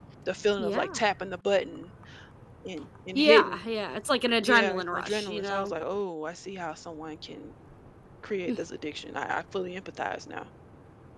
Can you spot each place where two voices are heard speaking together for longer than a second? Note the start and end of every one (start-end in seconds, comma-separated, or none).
4.4-5.7